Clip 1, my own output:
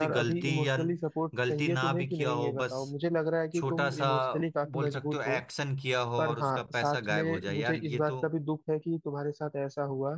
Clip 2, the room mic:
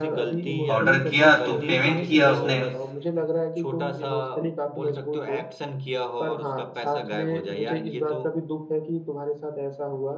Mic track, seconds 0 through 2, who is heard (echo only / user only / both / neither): both